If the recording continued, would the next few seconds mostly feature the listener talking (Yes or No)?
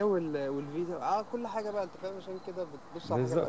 Yes